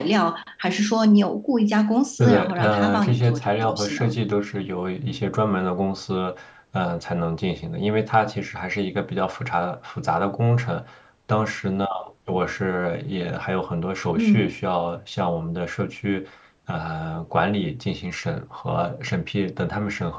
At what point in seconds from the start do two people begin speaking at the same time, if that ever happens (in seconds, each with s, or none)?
2.2 s